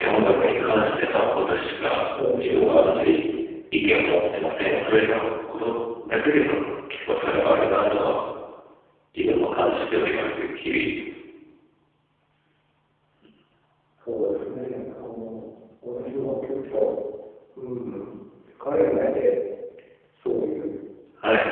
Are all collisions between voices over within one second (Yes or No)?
No